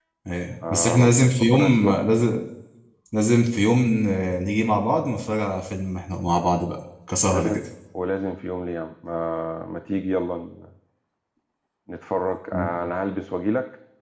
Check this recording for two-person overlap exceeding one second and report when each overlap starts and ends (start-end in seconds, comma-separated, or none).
0.7-2.0